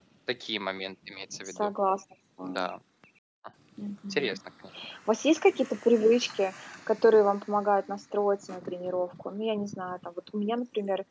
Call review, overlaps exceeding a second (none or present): none